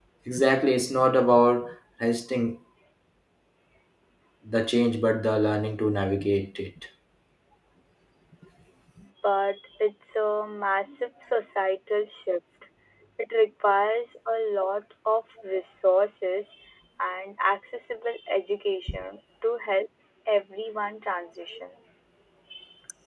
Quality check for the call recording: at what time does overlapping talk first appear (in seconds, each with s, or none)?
none